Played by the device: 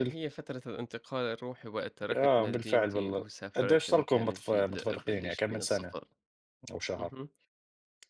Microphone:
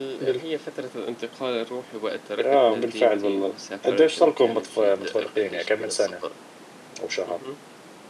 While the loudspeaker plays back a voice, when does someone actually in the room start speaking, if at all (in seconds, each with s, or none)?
none